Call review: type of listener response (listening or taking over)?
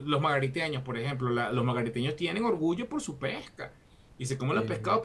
listening